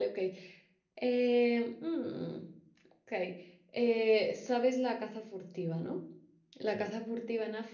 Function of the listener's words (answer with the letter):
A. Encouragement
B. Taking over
A